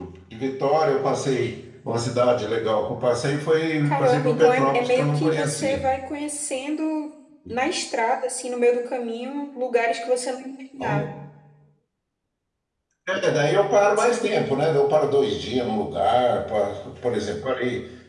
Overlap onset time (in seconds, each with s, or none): 3.8 s